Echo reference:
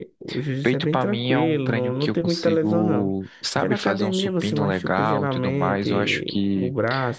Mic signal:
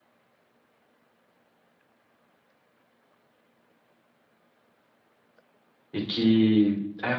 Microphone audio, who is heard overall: user only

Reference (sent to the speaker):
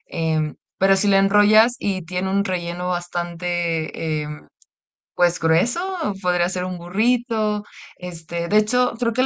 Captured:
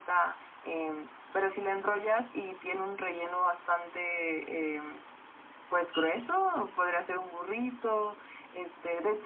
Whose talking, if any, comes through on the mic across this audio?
echo only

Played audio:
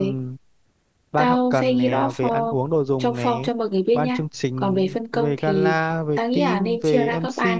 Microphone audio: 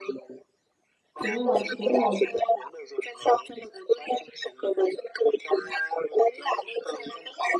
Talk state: both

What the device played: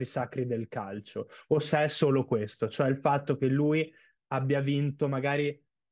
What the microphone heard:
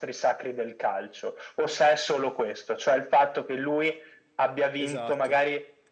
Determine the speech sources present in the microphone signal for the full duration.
both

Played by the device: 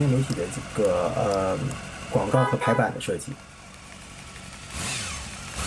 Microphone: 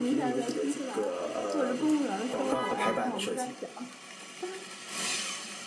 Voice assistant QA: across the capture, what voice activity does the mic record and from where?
both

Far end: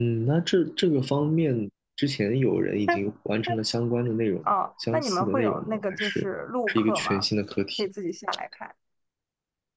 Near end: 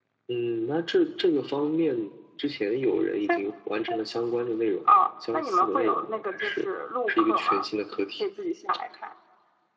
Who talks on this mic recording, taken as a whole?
echo only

